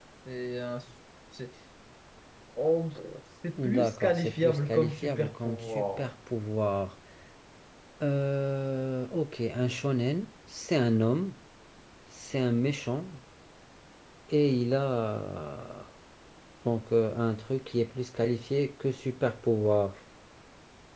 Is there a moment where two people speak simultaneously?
Yes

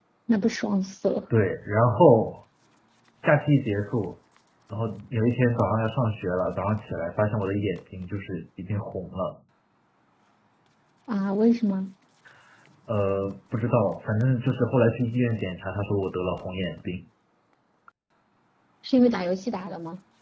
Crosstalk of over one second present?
No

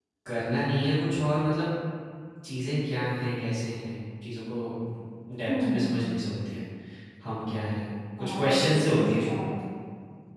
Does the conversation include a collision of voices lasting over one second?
Yes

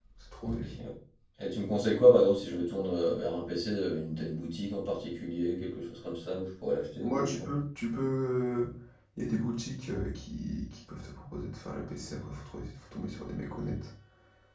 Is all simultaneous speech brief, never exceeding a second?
Yes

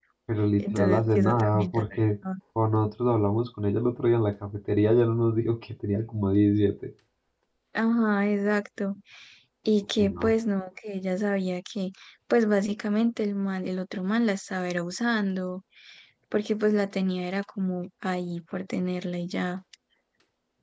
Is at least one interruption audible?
Yes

